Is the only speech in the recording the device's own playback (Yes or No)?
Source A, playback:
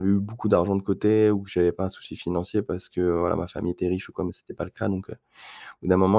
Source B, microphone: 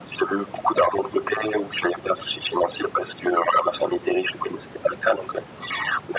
Yes